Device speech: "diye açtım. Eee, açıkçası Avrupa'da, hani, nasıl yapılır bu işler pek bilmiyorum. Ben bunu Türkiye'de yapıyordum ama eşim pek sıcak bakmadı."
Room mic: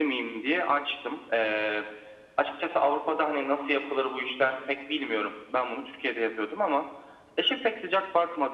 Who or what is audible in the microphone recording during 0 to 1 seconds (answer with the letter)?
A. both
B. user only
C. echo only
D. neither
C